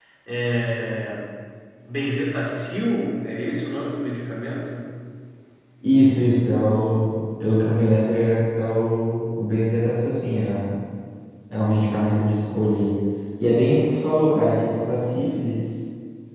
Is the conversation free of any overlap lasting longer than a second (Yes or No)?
Yes